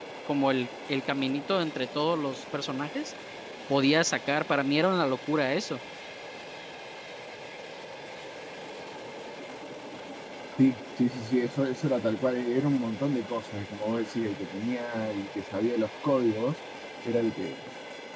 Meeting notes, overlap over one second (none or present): none